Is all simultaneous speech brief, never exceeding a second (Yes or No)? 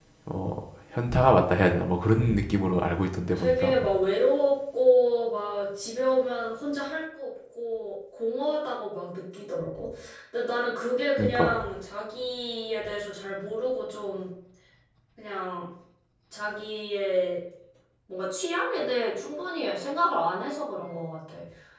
Yes